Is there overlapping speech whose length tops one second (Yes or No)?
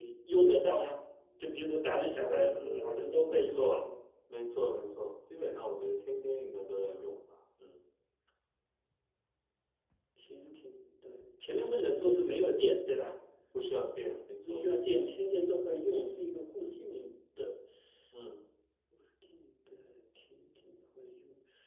Yes